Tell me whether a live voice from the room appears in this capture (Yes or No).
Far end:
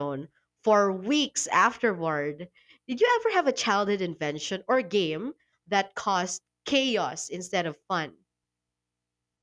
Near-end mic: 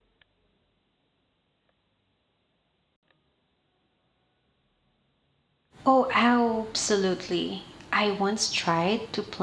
Yes